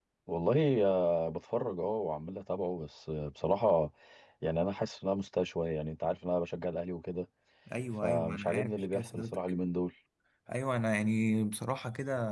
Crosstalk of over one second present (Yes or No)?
Yes